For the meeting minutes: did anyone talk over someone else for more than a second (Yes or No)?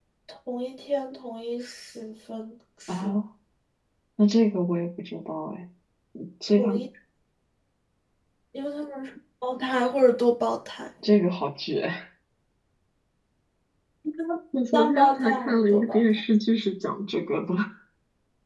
Yes